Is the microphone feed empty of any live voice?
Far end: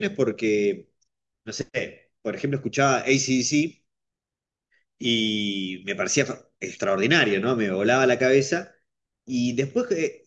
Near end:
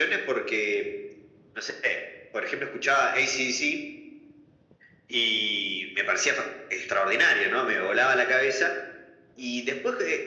Yes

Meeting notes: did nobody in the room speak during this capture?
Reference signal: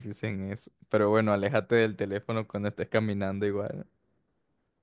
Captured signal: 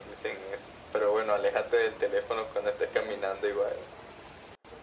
Yes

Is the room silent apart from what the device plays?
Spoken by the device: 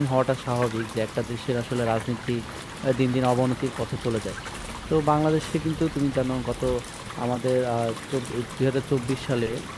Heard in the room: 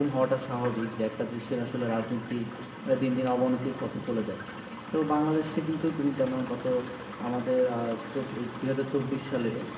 Yes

